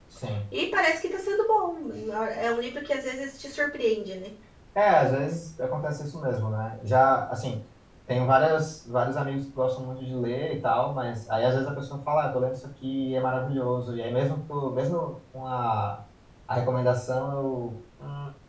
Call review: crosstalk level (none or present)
none